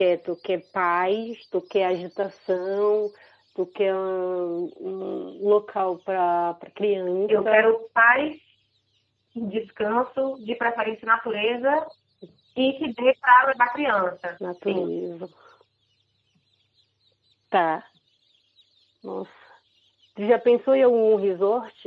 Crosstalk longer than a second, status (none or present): none